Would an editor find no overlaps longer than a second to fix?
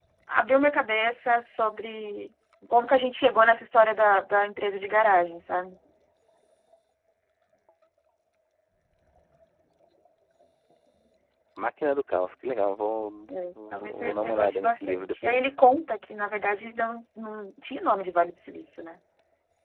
No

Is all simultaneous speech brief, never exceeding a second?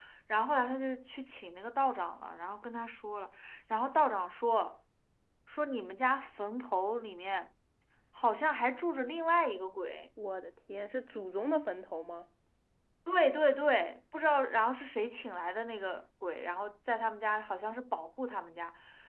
Yes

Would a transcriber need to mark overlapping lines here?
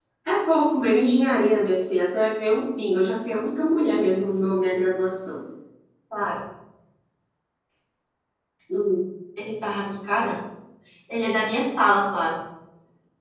No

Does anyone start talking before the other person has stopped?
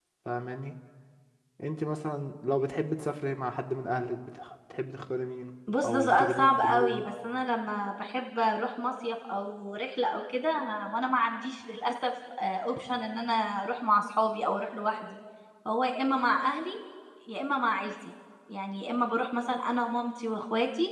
Yes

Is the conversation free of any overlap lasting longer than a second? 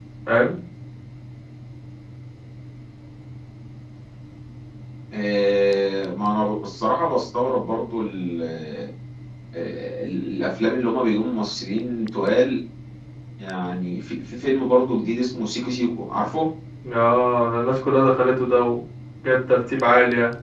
Yes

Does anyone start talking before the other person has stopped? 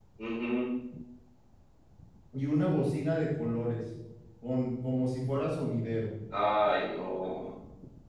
No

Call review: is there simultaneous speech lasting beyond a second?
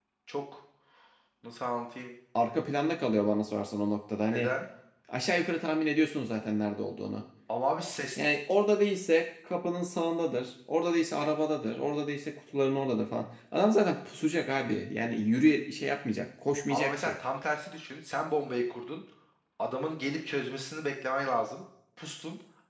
No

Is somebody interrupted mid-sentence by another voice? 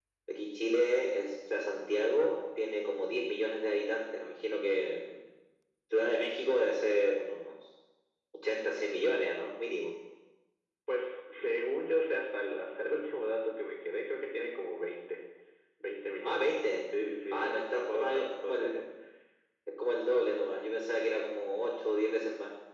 Yes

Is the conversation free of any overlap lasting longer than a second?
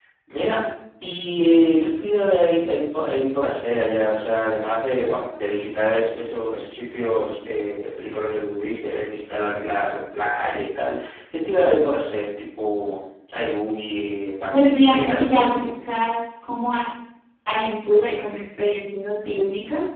No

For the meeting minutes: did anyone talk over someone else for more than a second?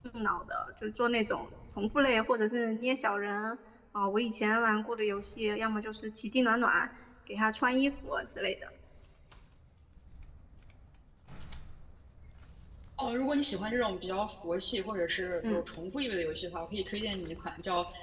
No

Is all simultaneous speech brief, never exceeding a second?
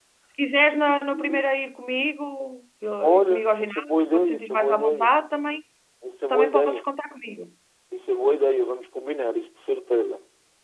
No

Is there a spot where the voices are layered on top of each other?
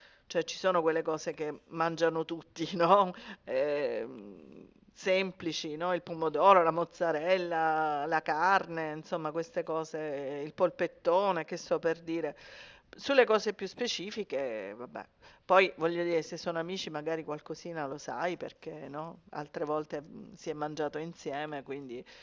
No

